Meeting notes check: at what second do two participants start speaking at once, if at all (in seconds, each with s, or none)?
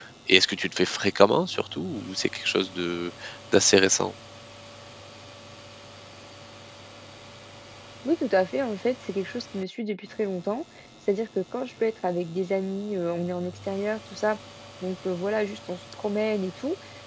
none